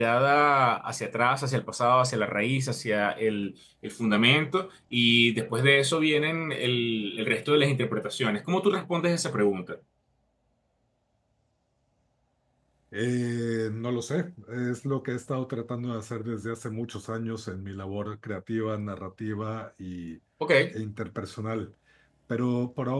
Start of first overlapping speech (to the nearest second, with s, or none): none